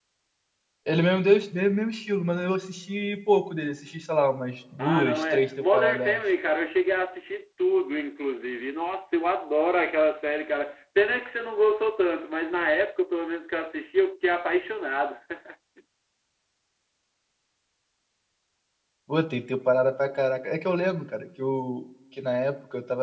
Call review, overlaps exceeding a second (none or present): present